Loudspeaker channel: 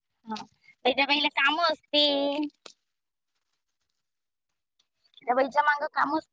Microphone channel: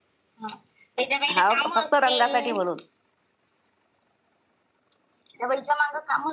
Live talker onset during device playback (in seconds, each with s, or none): 1.4 s